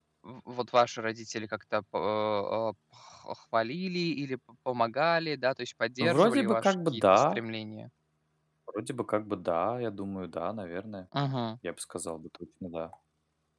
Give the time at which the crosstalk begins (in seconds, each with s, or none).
6.0 s